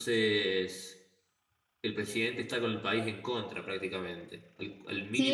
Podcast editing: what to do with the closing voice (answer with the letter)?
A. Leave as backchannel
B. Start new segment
B